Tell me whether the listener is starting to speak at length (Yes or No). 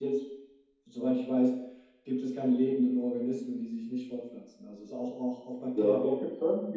Yes